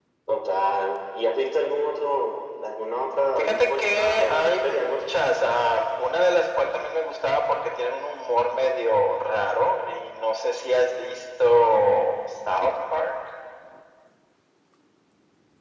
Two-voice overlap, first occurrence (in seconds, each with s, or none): 3.4 s